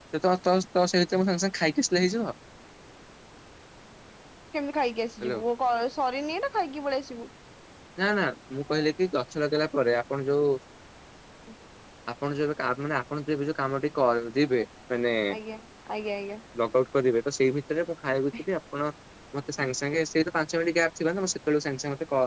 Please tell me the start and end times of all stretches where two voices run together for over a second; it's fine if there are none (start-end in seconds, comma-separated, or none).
none